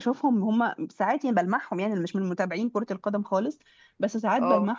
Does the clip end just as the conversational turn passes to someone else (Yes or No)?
No